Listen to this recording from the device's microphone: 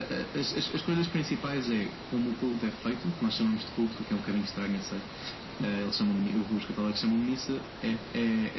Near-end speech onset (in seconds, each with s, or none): none